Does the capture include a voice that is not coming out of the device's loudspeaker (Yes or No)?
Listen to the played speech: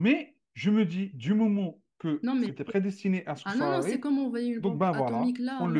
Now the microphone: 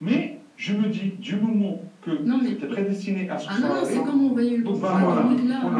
Yes